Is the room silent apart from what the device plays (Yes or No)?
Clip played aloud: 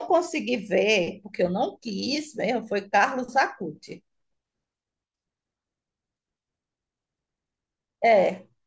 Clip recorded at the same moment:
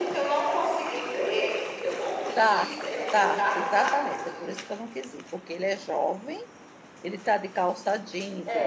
No